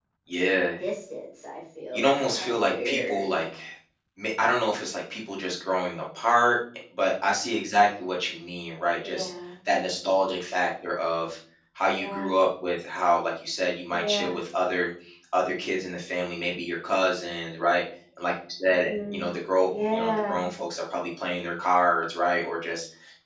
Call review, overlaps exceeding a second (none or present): present